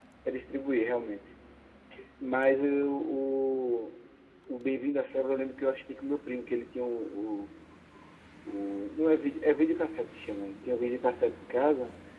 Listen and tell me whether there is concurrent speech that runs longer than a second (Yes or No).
No